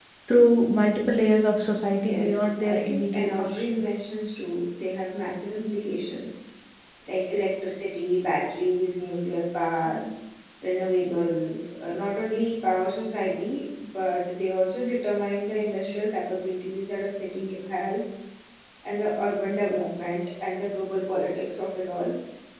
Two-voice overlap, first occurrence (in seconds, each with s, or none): 2.0 s